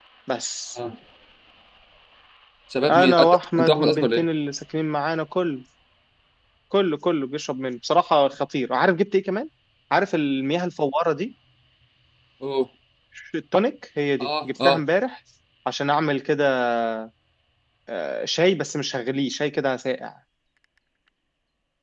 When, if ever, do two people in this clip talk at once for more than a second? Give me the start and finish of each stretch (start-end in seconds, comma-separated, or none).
2.9-4.2